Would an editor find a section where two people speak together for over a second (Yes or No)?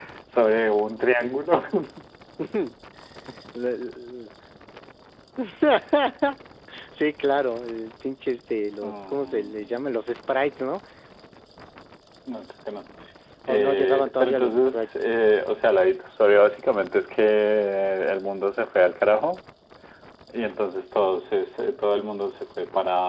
Yes